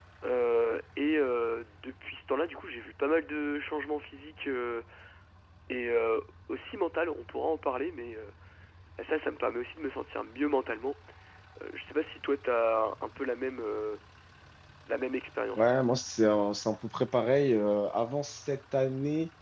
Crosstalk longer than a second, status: none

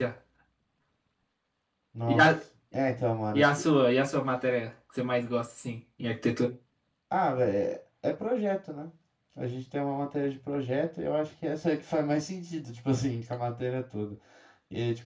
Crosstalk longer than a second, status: none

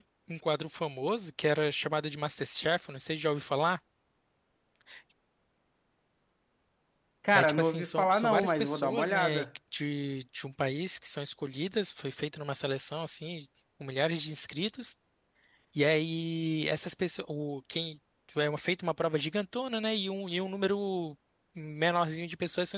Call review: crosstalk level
present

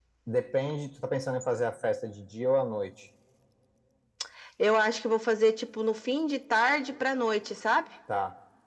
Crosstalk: none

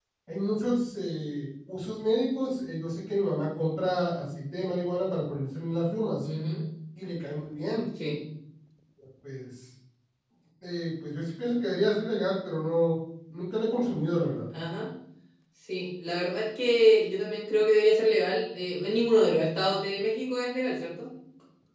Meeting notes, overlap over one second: none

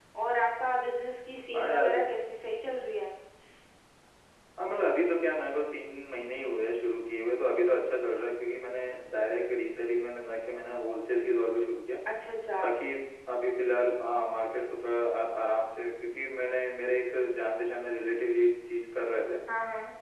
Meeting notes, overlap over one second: none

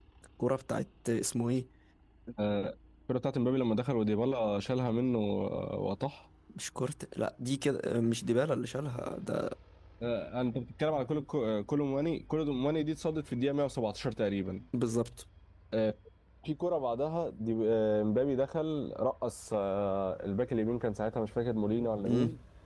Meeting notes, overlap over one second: none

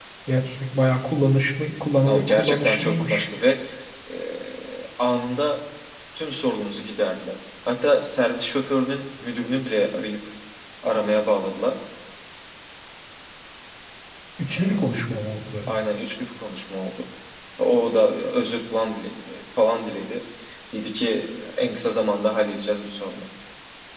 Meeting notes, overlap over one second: present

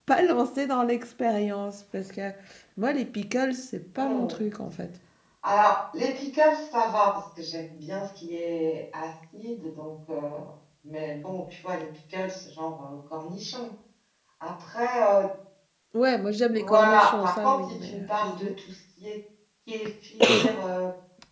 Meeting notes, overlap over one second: present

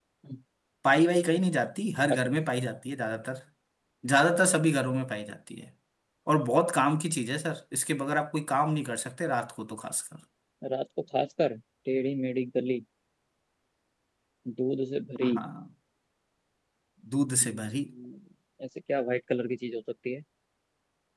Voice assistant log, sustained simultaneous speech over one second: none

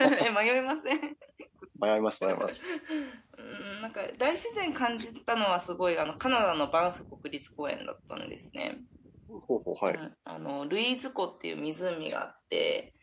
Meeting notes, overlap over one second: none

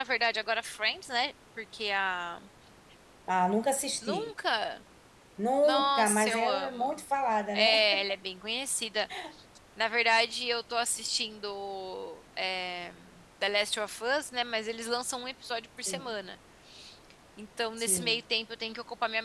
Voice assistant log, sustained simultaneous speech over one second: present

